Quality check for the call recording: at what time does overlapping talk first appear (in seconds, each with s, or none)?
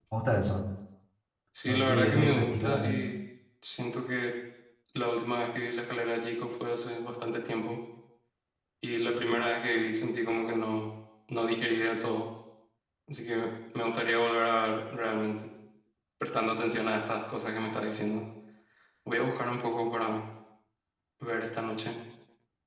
1.7 s